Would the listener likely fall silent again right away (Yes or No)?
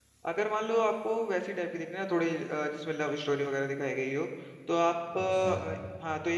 Yes